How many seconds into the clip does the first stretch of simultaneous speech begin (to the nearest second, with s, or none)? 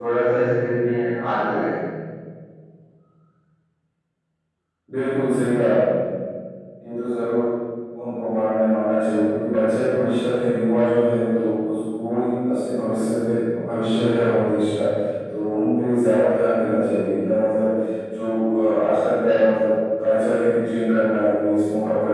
none